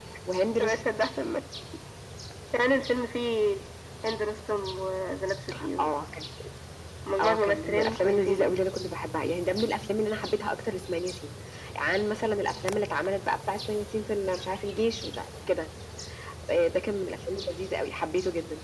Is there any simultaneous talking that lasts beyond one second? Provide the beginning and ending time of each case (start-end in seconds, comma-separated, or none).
7.2-8.5